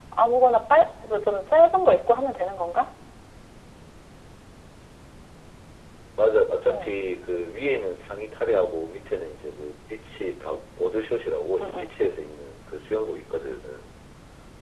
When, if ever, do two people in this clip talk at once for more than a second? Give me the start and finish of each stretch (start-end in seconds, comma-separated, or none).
none